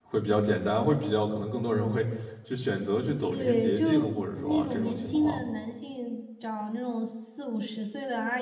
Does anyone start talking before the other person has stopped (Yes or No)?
Yes